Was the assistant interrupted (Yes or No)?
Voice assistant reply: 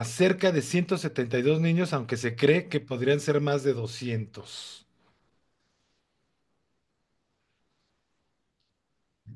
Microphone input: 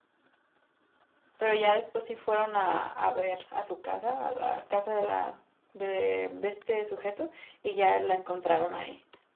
Yes